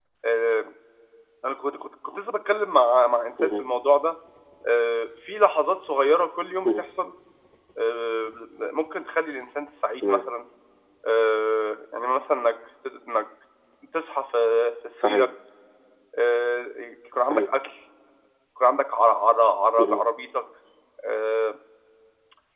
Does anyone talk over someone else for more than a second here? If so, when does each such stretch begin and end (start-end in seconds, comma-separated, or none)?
none